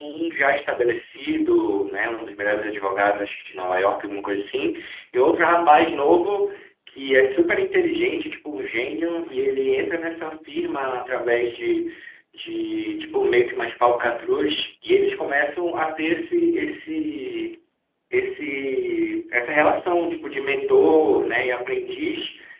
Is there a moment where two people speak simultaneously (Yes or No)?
No